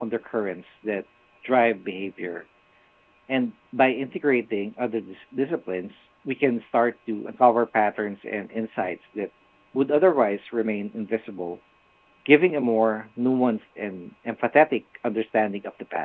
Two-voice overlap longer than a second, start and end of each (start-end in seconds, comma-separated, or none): none